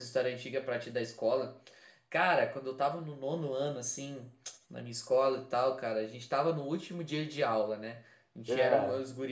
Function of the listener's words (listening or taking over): listening